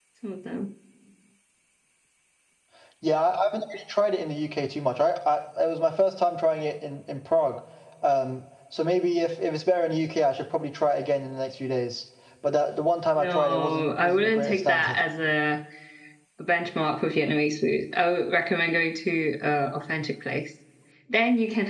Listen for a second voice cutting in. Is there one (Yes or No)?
Yes